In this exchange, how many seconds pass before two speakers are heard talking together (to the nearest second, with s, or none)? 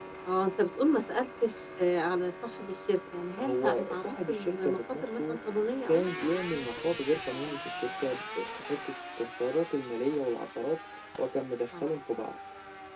3 s